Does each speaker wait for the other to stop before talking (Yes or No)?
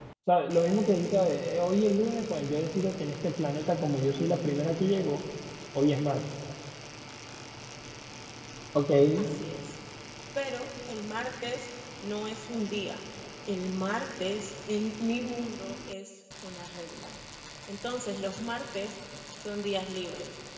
Yes